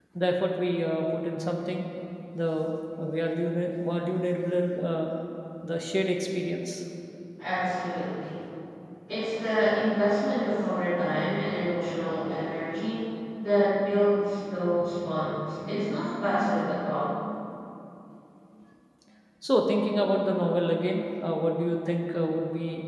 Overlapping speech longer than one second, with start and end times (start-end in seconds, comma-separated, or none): none